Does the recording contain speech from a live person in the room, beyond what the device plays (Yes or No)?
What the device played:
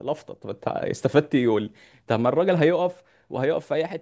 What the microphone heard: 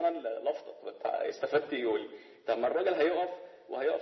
No